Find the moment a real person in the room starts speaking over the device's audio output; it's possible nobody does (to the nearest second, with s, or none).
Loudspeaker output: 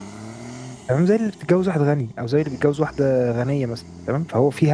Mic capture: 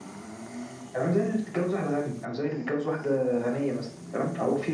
none